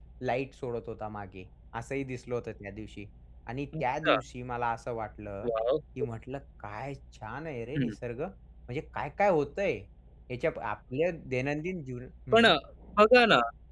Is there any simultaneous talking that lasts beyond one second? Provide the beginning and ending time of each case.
none

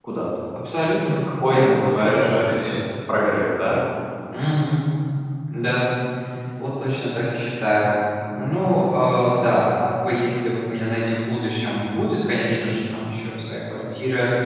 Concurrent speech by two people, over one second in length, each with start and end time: 1.5-2.7

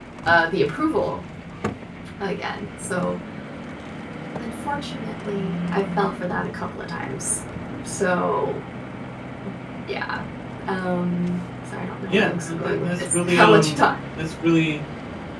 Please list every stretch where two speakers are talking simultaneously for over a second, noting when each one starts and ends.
12.1-13.8

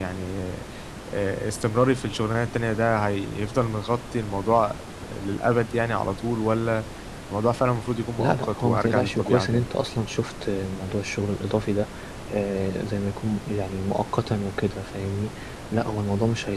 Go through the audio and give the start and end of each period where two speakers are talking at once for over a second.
8.2-9.7

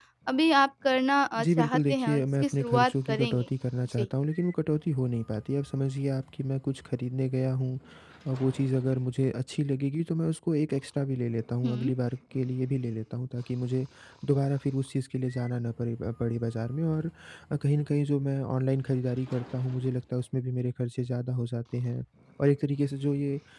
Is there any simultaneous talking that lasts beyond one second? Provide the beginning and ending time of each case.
1.4-3.5

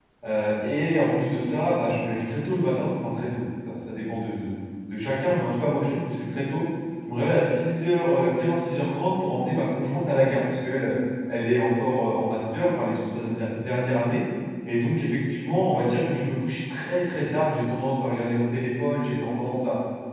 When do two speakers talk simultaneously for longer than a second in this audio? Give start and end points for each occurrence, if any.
none

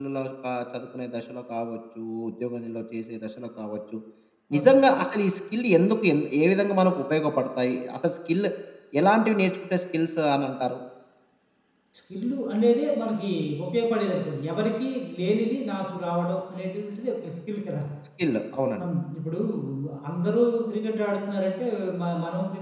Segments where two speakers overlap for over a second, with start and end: none

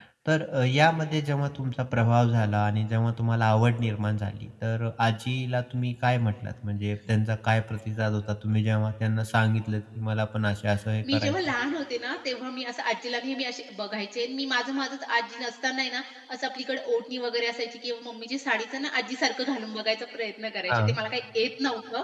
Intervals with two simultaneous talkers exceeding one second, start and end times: none

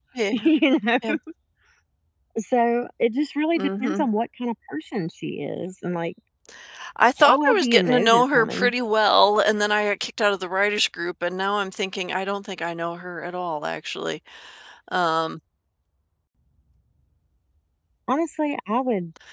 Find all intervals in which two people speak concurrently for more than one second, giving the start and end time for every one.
7.2-8.7

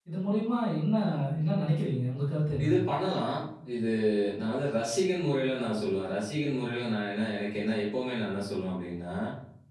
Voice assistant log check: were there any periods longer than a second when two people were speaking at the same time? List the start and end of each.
none

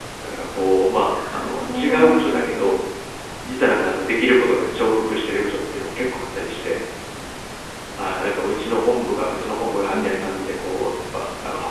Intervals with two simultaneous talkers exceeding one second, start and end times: 1.1-2.6

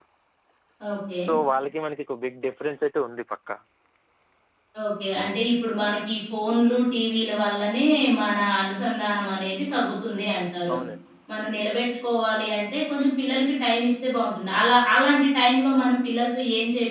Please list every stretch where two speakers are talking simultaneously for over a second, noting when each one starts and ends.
none

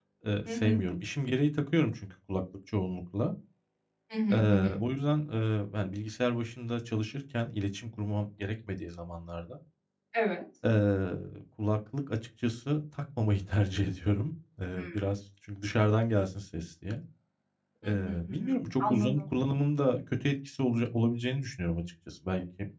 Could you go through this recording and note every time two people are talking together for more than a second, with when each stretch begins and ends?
17.8-19.2

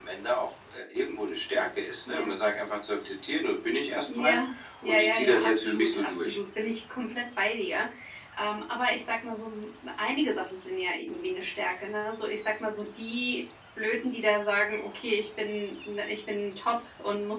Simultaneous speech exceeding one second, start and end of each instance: 4.8-6.4

